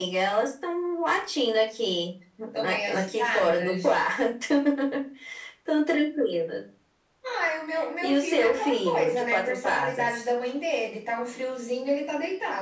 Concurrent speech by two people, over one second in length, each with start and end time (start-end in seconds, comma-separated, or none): 2.6-4.0, 8.0-10.1